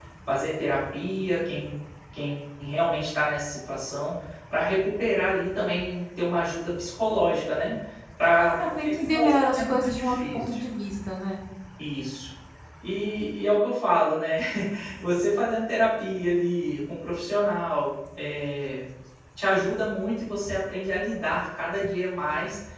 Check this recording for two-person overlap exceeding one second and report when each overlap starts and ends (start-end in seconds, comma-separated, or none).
8.8-10.4